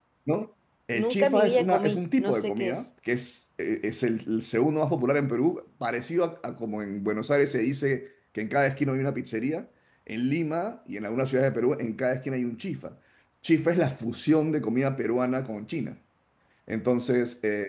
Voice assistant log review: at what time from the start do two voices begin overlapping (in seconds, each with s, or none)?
0.9 s